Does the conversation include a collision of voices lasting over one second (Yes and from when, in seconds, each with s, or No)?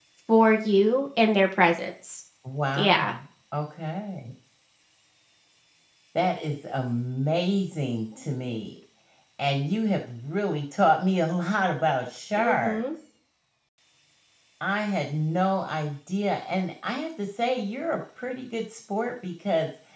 No